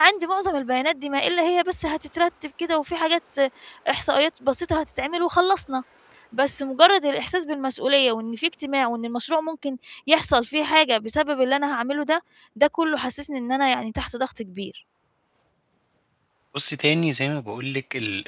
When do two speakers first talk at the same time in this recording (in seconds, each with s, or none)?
none